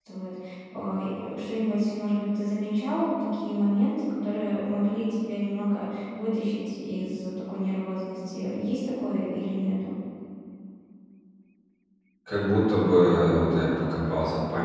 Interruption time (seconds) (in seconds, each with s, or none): none